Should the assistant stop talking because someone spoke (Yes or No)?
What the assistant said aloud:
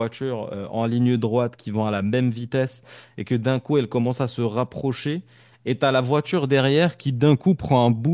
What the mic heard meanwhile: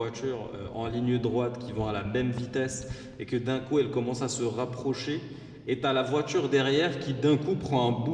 No